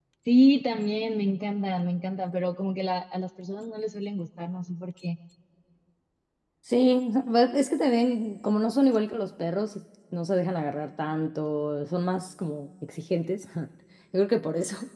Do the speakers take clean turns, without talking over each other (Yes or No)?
Yes